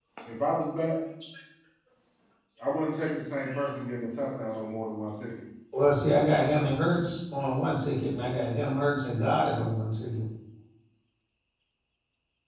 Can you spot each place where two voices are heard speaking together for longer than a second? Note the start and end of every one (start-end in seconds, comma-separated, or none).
none